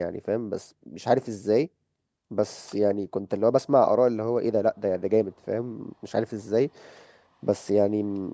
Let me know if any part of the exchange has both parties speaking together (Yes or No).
No